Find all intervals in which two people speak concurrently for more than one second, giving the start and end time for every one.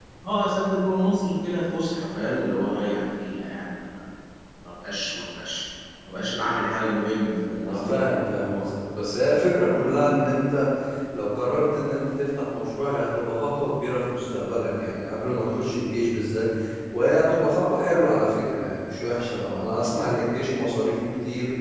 none

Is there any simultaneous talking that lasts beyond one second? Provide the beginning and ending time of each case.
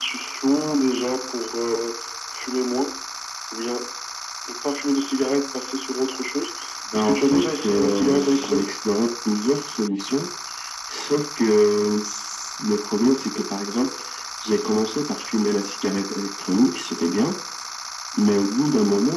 7.0-8.8

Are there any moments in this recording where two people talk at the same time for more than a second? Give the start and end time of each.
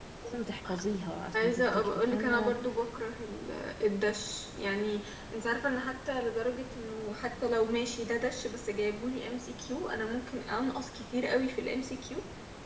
1.3-2.6

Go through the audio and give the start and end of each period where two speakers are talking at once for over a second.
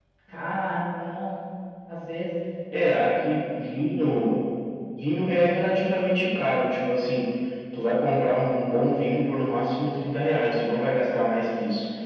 none

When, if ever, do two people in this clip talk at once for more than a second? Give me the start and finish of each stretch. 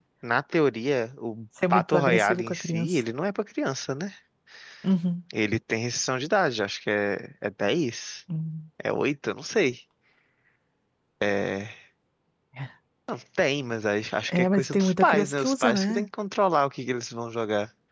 1.7-3.0, 14.3-16.1

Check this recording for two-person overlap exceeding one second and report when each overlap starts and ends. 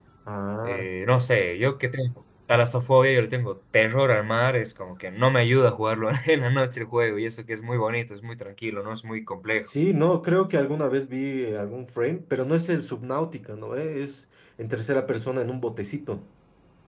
none

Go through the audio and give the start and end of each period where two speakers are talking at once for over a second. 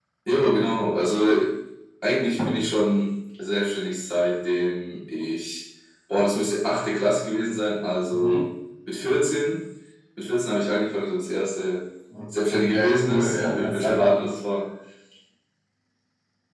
12.5-14.2

